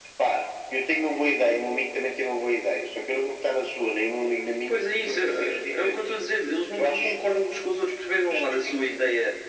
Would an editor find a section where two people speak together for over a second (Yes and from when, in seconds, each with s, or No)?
Yes, from 4.7 s